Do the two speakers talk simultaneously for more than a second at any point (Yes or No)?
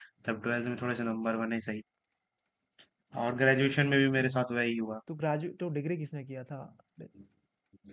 No